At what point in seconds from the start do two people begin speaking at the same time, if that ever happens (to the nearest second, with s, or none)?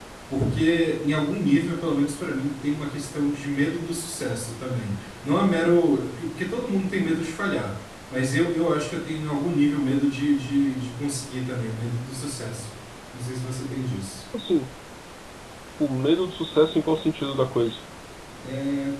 none